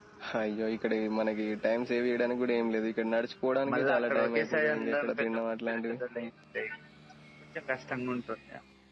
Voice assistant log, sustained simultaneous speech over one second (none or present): present